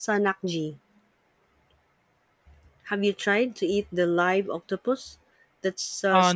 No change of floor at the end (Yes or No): Yes